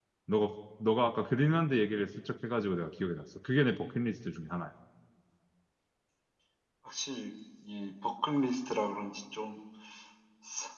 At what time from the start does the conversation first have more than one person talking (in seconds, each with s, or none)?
none